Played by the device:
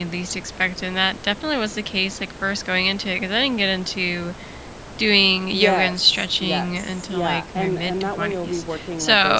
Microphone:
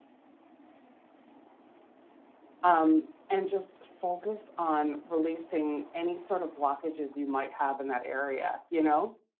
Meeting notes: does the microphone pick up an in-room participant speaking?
Yes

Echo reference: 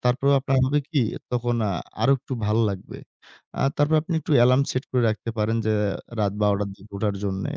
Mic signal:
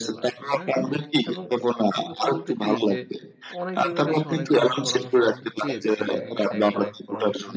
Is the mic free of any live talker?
No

